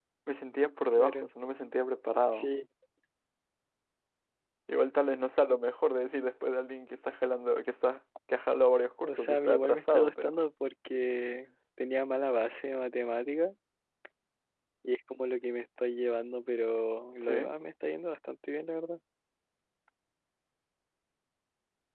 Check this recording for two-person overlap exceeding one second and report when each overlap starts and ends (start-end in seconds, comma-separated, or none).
9.0-10.3